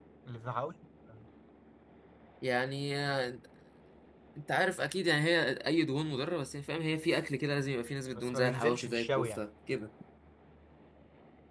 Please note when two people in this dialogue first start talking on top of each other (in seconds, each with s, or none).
8.2 s